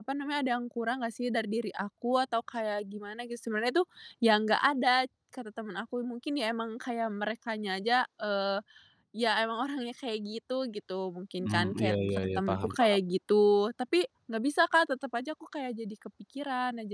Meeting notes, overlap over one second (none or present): present